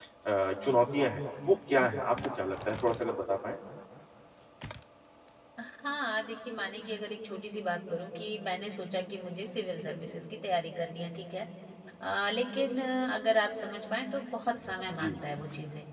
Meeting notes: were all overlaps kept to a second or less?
Yes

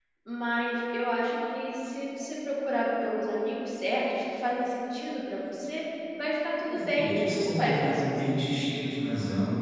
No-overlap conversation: No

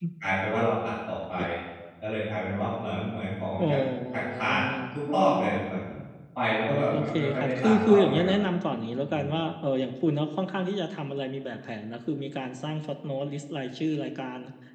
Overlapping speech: Yes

